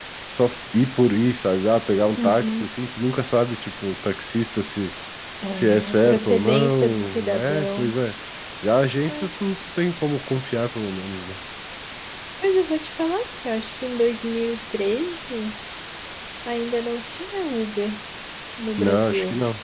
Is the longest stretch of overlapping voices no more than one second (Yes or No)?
No